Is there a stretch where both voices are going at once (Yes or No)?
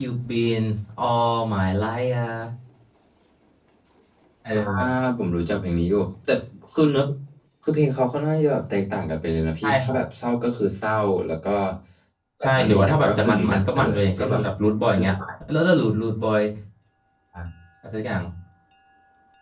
Yes